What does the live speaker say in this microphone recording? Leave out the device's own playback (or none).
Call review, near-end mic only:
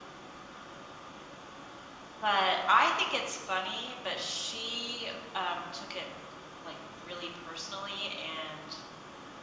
none